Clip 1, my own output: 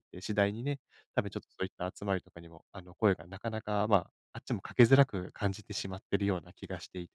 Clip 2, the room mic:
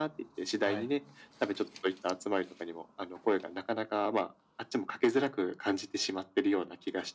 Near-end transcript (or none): はい。